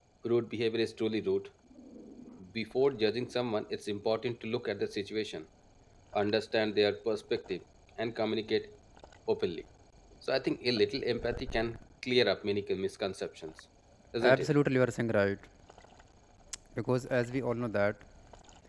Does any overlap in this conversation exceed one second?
No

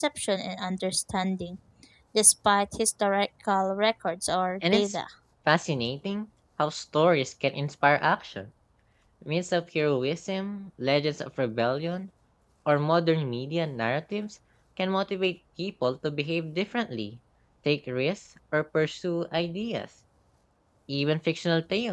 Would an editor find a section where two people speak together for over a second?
No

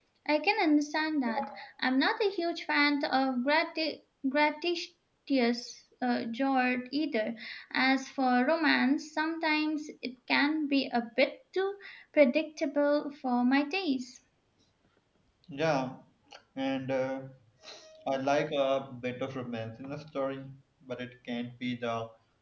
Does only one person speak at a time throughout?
Yes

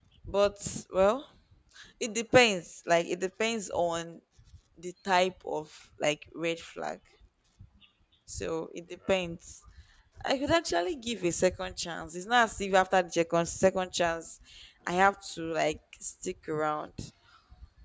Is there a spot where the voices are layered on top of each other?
No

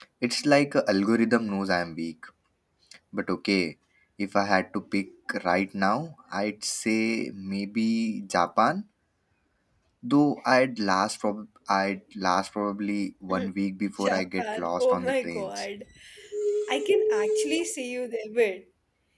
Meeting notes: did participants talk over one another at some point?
Yes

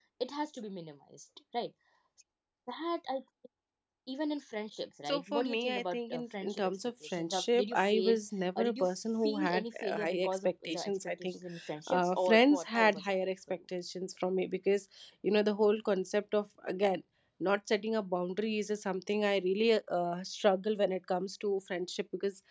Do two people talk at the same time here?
Yes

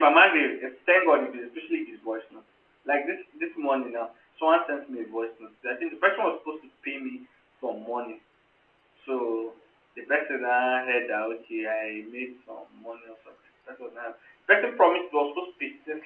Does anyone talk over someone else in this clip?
No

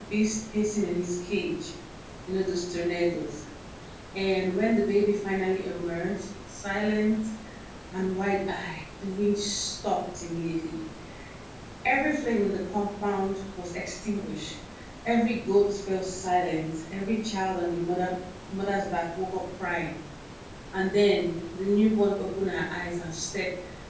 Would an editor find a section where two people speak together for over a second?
No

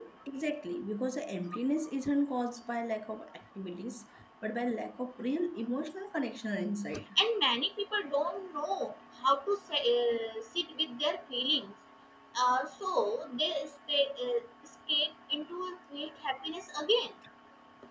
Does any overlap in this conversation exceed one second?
No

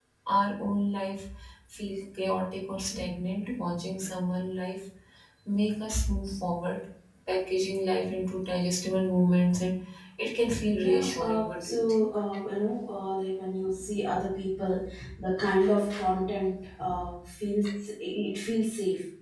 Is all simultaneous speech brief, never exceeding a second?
No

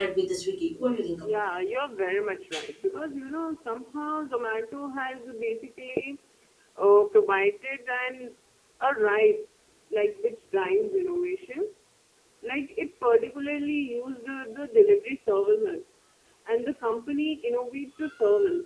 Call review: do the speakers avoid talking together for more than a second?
Yes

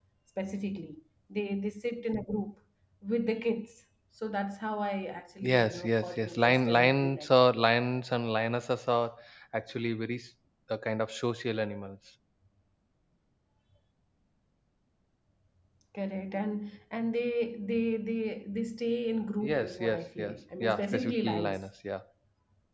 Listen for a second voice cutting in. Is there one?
Yes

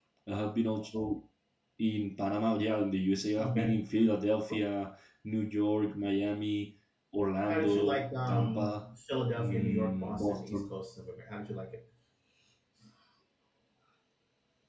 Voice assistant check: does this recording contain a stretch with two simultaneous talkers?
Yes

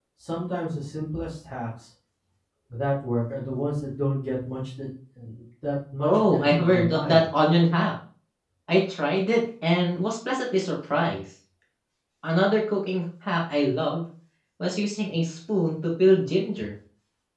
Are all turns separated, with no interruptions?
No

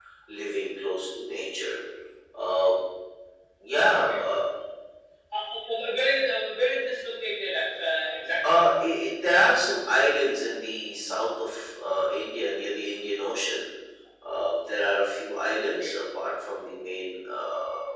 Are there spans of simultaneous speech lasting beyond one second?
No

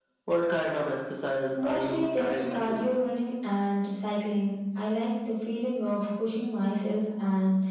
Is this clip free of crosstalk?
No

